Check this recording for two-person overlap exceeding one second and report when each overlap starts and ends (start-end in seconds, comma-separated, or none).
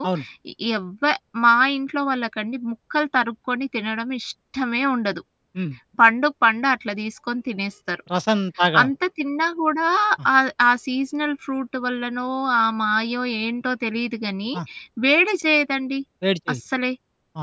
none